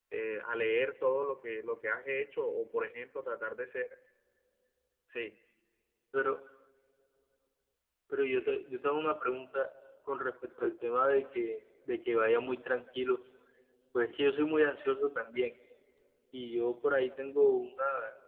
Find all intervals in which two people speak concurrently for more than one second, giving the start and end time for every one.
none

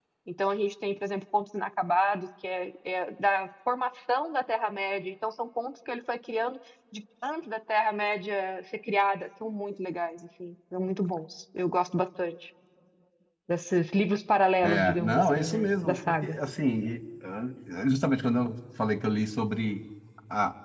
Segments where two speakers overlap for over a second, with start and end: 14.6-16.4

